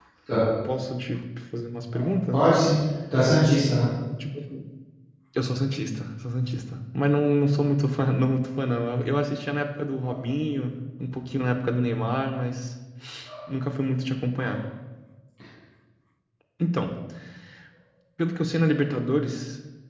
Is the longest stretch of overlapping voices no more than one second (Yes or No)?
Yes